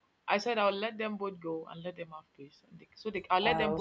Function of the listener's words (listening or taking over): listening